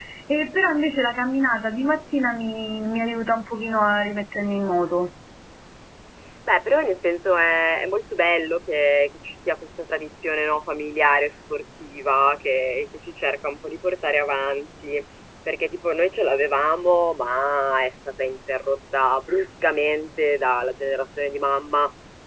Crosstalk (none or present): none